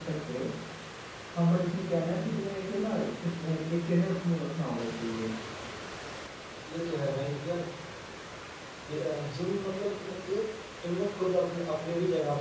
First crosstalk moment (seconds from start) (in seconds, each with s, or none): none